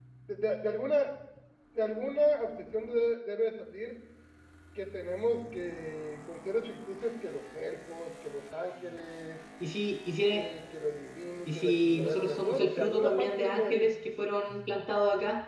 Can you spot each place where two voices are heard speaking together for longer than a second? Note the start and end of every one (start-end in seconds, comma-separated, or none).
11.5-13.9